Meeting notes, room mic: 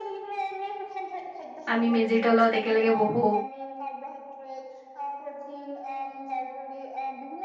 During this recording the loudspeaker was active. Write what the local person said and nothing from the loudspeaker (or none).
আমি মেজিৰ তলত একেলগে বহো